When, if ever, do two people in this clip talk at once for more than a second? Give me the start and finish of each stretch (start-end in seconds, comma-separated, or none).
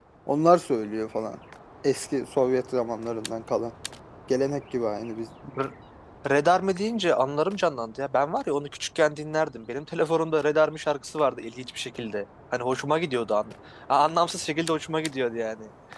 none